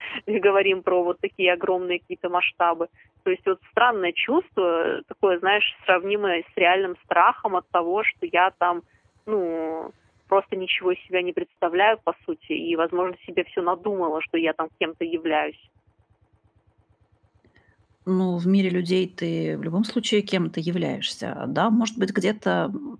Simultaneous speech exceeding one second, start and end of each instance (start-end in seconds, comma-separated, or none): none